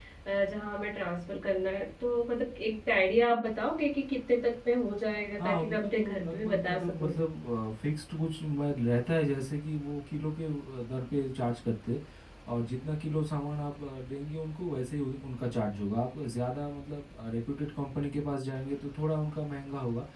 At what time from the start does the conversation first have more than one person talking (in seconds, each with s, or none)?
5.4 s